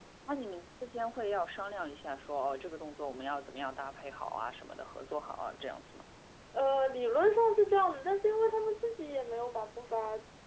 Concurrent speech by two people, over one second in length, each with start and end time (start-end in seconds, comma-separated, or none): none